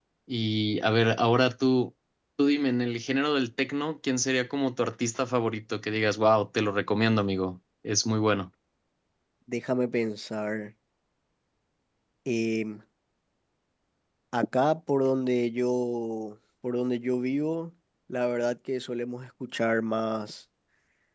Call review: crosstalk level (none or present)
none